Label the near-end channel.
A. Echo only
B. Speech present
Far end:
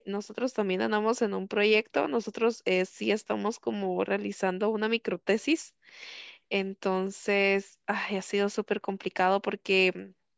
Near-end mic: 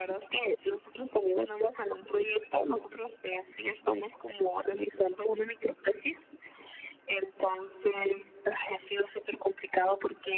A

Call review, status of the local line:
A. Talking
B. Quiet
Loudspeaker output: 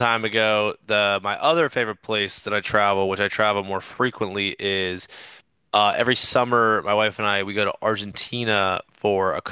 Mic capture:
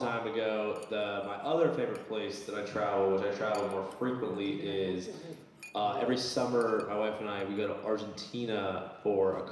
A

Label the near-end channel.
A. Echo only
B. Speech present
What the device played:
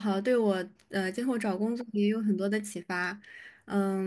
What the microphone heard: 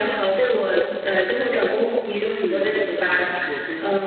B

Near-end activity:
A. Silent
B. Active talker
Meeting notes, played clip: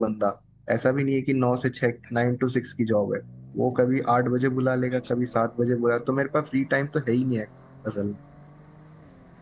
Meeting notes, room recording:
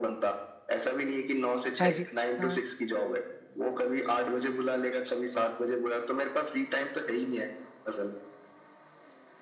B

